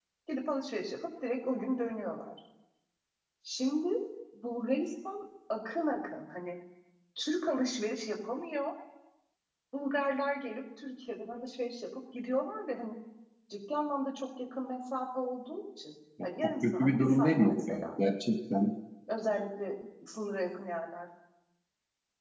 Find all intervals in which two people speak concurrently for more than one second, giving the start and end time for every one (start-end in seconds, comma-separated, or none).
16.4-17.9